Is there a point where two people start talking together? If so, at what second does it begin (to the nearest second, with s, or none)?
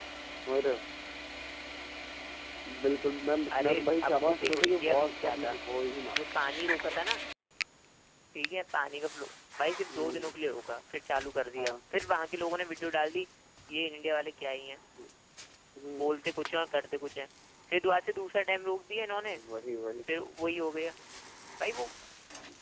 4 s